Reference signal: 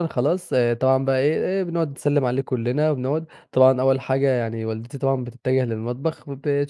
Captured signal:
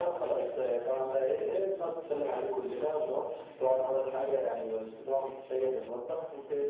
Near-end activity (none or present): none